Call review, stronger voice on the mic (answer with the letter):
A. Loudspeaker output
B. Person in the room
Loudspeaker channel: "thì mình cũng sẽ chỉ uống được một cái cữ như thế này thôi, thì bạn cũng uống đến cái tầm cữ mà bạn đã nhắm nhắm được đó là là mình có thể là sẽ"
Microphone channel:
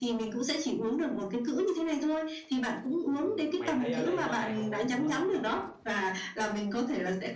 A